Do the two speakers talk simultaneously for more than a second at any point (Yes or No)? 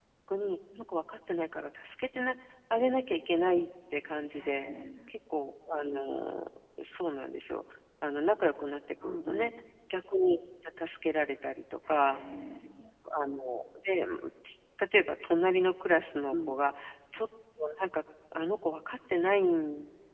No